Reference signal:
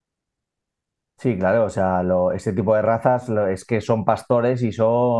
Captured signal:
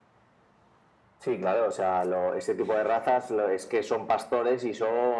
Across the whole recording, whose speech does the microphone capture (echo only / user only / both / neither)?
echo only